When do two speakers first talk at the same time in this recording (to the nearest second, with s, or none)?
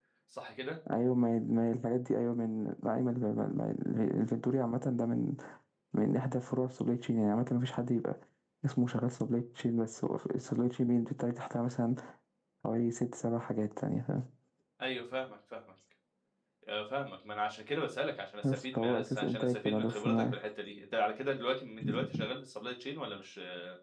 18 s